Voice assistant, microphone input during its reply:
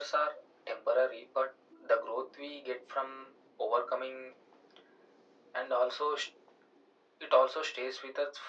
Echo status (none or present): present